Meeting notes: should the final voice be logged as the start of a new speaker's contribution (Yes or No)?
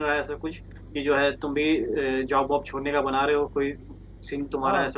Yes